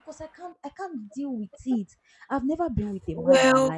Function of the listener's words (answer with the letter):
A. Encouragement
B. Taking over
A